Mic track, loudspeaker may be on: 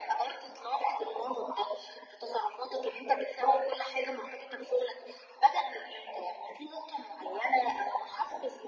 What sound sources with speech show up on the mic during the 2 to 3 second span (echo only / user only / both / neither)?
echo only